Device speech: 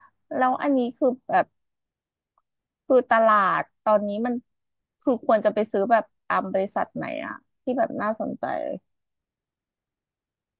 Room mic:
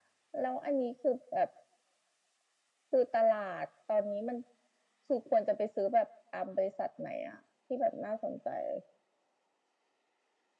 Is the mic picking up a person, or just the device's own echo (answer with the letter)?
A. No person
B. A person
A